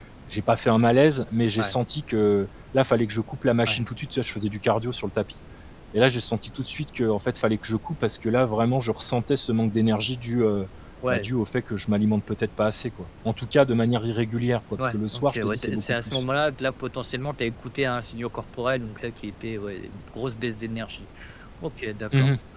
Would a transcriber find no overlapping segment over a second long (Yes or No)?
No